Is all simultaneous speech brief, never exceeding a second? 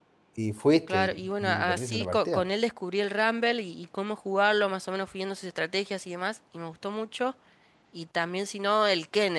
No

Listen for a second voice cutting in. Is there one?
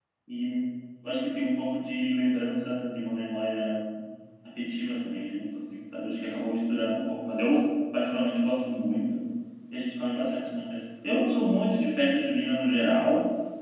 No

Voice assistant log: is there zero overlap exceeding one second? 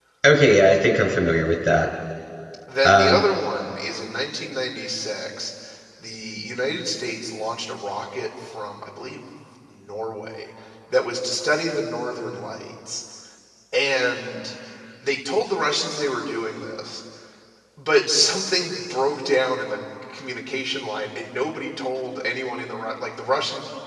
Yes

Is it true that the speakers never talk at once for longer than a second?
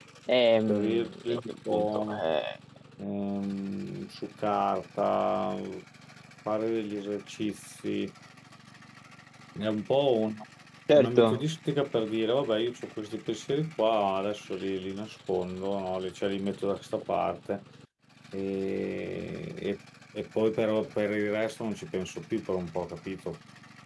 No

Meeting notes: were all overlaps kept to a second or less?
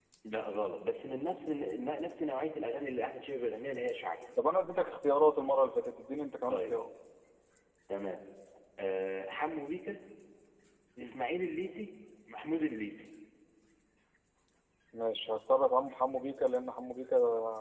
Yes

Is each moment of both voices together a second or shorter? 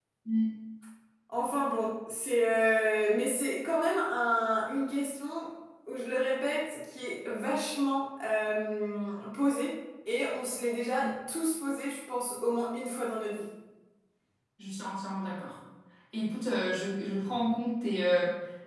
Yes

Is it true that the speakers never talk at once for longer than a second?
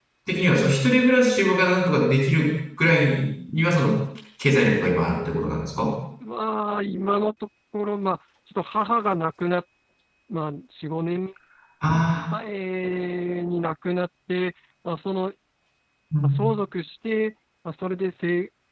Yes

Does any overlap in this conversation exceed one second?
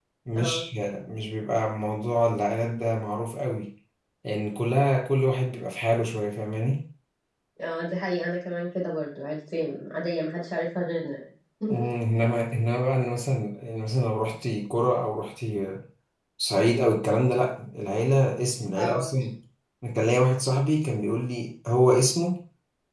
No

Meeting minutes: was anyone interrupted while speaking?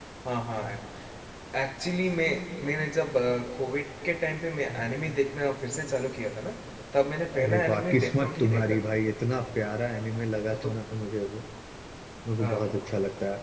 Yes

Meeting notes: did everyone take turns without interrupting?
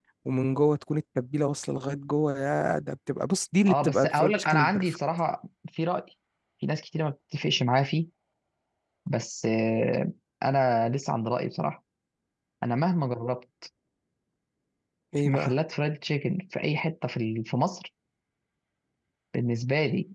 No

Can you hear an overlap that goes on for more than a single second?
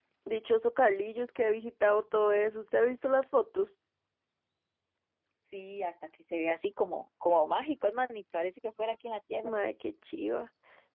No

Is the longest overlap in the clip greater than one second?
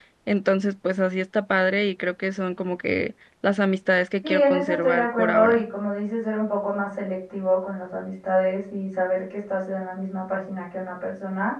Yes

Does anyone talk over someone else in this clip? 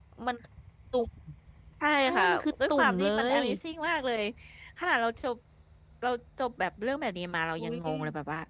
Yes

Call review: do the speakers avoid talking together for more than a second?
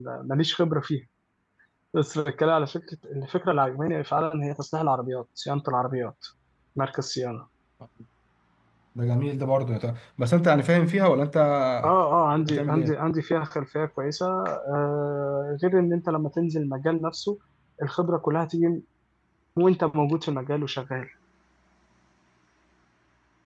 Yes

